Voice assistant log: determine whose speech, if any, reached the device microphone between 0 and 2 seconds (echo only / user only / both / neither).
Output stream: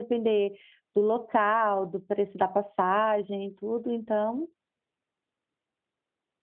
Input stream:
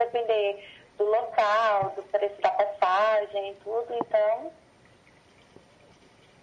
echo only